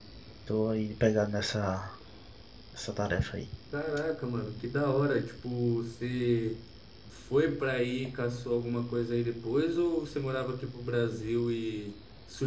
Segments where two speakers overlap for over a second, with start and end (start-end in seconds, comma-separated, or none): none